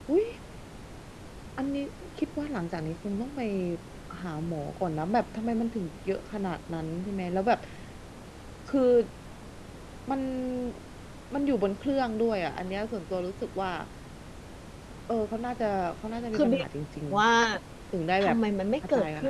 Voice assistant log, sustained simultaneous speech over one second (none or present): none